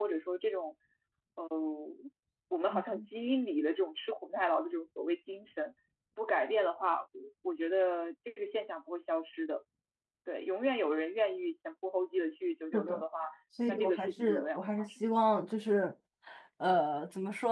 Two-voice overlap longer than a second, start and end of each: 13.7-14.9

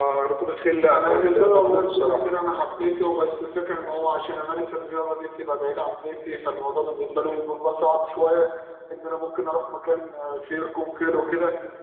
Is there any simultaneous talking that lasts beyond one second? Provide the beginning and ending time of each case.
0.9-2.2

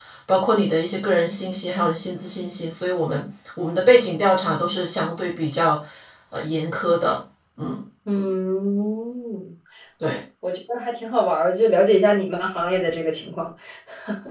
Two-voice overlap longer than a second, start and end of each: none

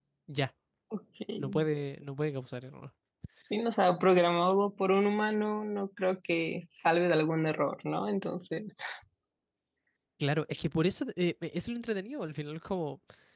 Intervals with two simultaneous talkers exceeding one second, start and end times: none

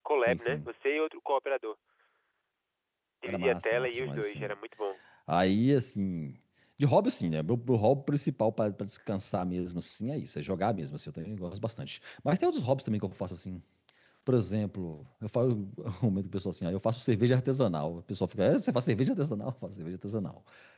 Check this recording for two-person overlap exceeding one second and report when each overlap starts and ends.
3.3-4.5

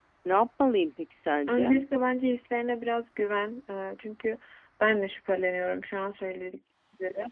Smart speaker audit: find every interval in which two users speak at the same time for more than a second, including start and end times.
none

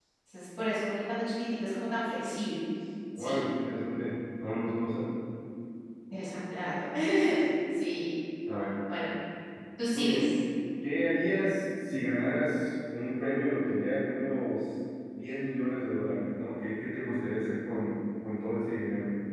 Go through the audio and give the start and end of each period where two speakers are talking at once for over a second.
none

